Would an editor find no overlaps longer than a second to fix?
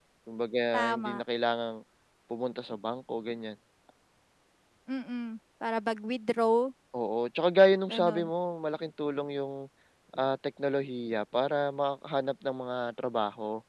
Yes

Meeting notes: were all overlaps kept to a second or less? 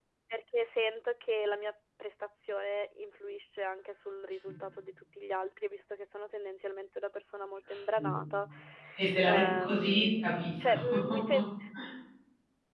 No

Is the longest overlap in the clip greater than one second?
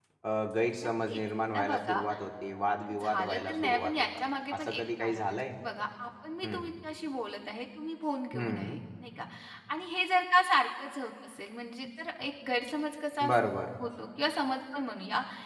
Yes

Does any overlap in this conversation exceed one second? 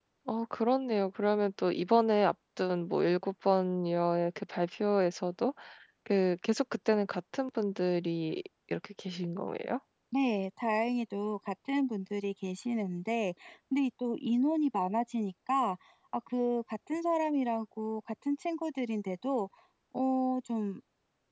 No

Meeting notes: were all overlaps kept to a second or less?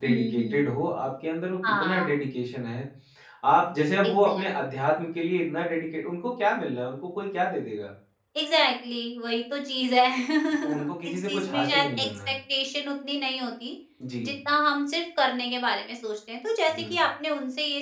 No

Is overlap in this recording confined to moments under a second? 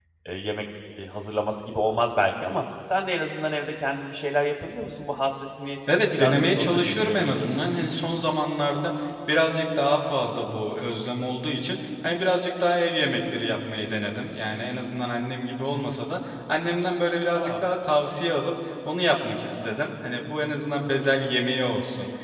No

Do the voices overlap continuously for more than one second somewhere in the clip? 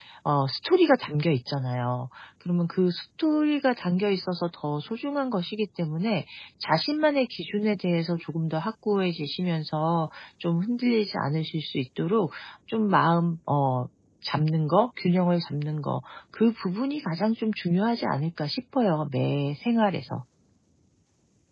No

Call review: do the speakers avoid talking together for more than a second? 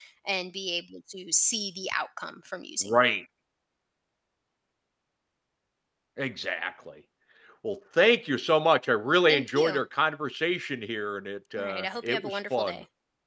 No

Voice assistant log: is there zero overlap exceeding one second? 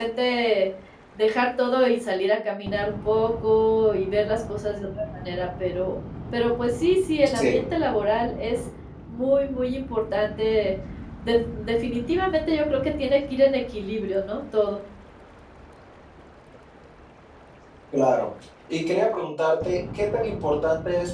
Yes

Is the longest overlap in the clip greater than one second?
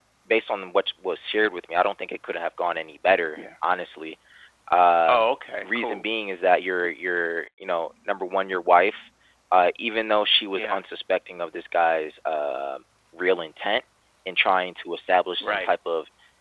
No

